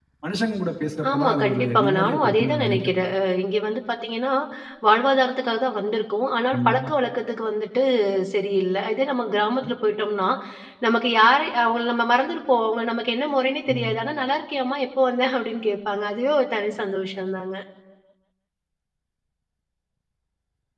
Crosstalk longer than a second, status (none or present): present